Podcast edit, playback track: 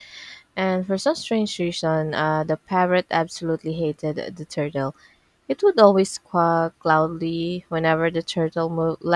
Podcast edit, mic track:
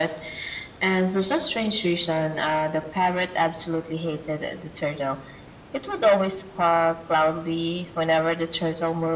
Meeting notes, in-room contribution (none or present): none